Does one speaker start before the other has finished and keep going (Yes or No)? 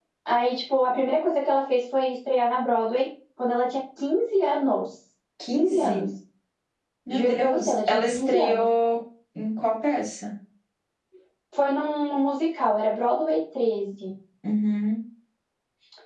Yes